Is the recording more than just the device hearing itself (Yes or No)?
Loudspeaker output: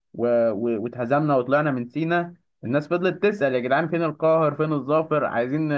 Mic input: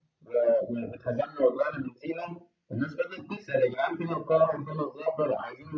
No